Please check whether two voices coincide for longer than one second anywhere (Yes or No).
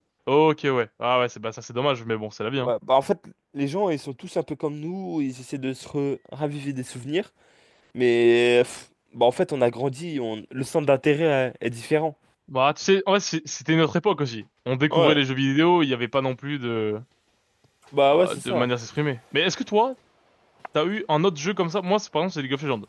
No